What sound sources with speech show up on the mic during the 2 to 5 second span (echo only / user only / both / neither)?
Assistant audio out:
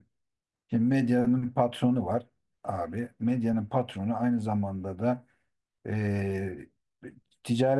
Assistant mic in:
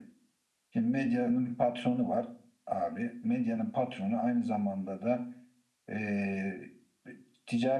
echo only